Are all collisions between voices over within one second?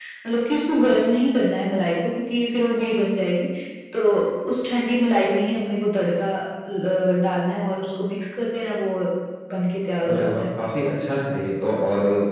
Yes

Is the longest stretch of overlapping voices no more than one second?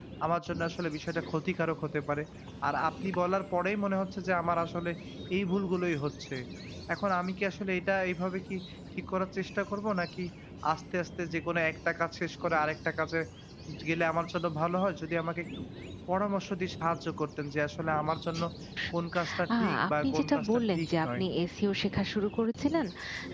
No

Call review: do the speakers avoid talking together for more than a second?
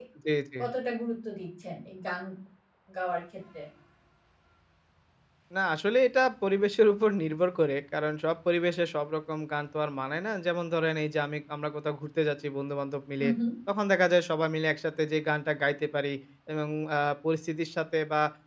Yes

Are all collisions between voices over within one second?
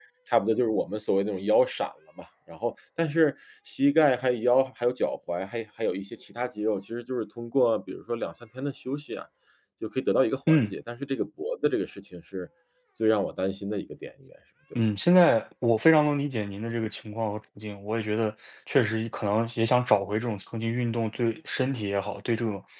Yes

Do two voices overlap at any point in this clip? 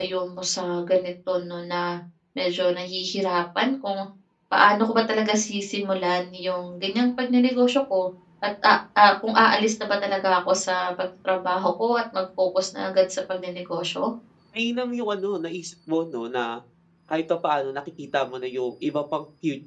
No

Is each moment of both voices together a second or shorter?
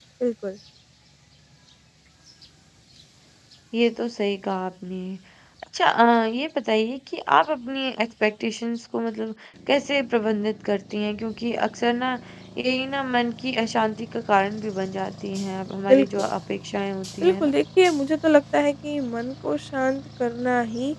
Yes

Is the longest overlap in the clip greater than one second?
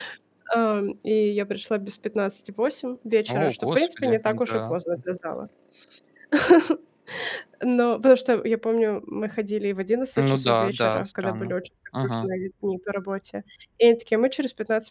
Yes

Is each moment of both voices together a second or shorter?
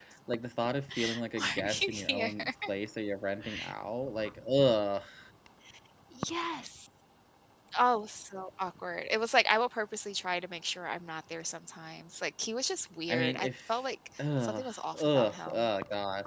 No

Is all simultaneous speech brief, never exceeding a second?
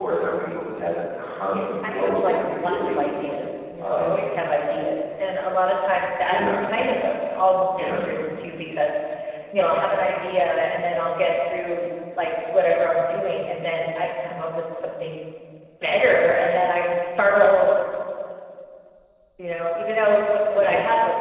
No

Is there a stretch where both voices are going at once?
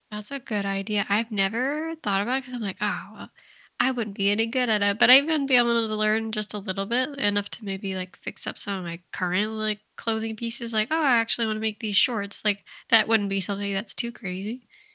No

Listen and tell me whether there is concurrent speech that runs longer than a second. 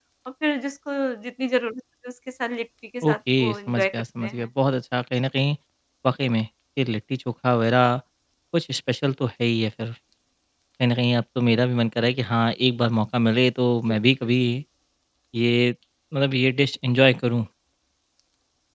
Yes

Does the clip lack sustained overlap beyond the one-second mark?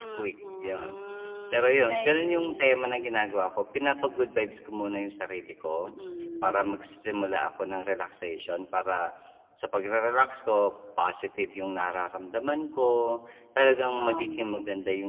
No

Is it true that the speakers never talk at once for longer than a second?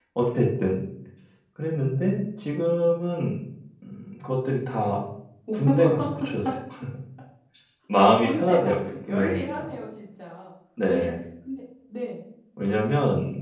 No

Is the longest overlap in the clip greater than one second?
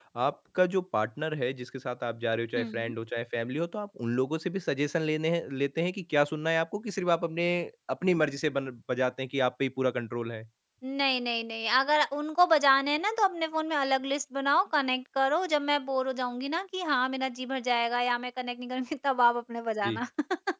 No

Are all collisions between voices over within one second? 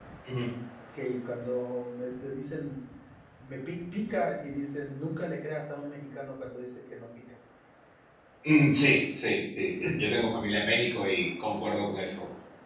Yes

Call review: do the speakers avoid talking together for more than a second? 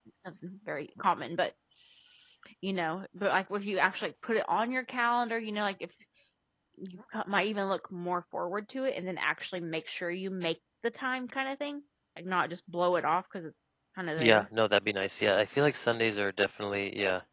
Yes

